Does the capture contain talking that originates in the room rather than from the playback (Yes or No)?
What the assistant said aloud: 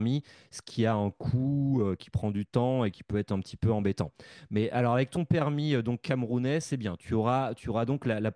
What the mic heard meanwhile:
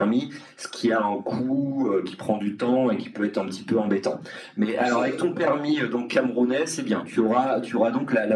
Yes